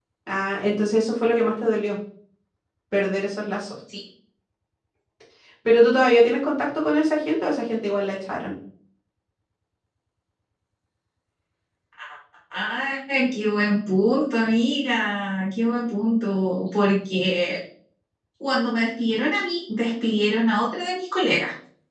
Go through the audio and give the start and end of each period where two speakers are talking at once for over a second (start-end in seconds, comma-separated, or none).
none